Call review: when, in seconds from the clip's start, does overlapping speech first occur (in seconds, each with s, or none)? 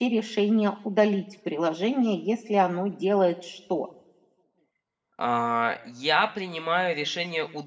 none